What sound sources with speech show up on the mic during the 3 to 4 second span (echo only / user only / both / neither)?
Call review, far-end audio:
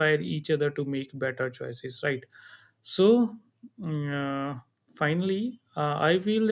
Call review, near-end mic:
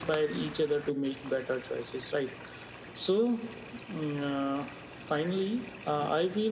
echo only